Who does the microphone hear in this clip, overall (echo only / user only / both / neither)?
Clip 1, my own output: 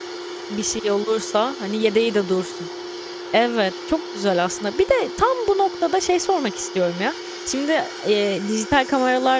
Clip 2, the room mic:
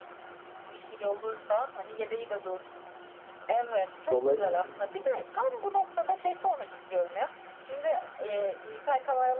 both